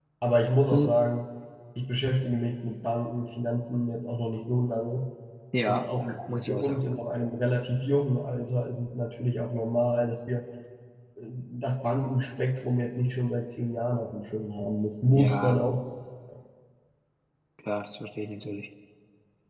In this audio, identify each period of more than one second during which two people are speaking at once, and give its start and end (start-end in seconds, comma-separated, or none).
5.7-7.0